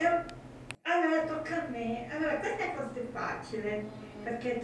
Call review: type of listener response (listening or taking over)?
listening